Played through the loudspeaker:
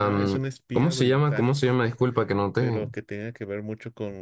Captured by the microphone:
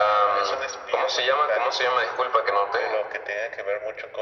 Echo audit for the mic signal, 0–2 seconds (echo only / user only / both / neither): echo only